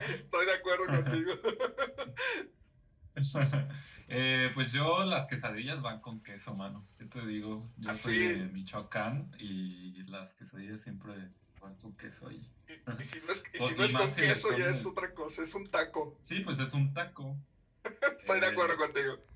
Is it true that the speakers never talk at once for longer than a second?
No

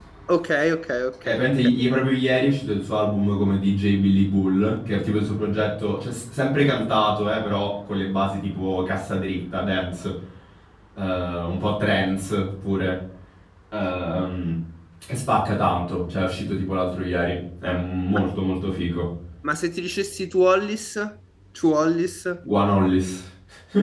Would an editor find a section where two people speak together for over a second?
No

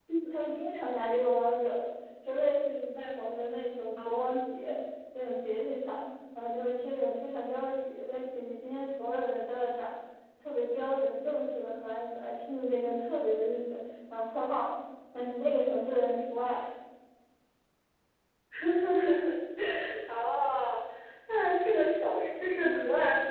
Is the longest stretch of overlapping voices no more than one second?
Yes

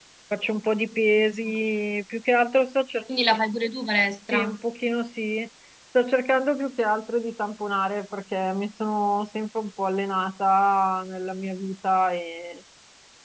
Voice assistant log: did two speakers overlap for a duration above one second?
No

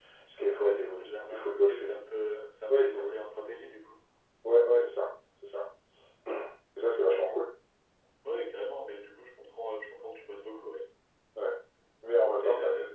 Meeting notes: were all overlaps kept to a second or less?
No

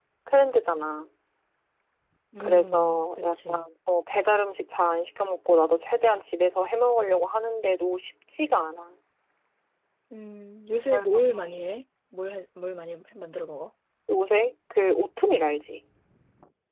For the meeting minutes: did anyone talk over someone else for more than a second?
Yes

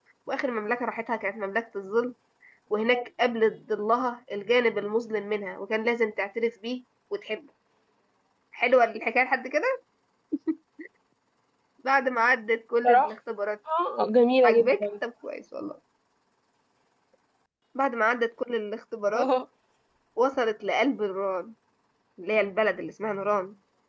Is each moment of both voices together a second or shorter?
Yes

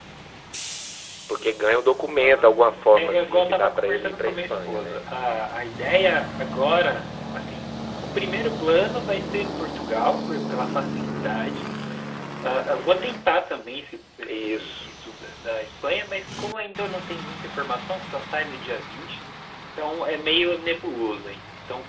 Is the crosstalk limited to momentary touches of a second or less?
No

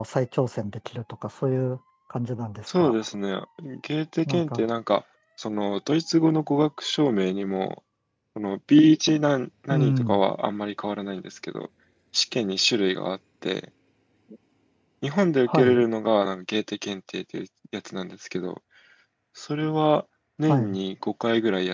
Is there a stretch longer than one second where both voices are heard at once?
No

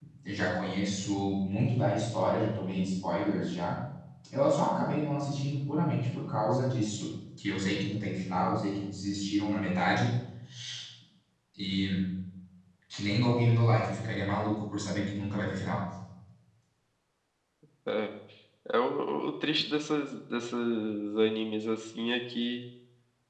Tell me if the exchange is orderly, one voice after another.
Yes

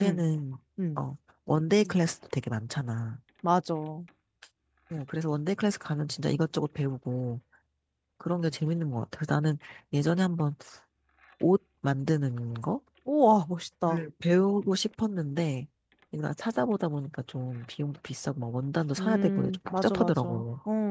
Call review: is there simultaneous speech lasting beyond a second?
Yes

